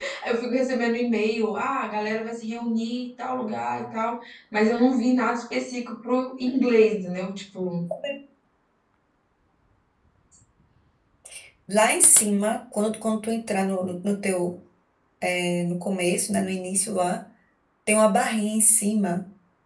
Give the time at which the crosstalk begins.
none

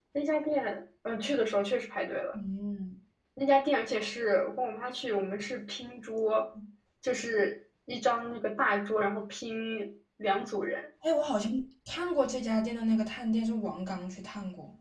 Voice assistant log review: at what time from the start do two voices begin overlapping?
none

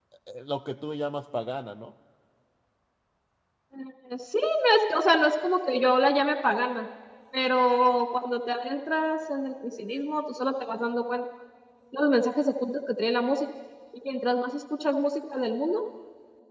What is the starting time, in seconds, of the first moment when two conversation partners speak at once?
none

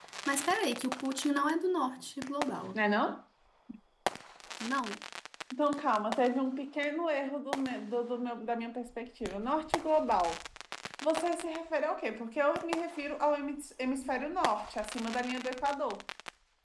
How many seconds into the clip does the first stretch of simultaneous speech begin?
none

